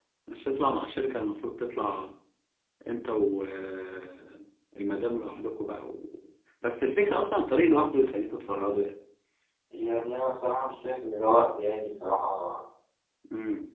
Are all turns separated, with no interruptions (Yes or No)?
Yes